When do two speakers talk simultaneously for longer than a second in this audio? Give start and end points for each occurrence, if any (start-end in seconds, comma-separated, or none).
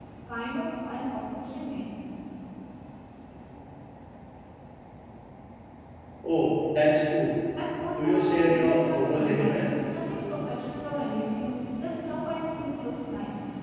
8.0-9.7